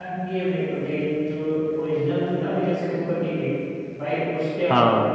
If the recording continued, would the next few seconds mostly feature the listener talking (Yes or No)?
No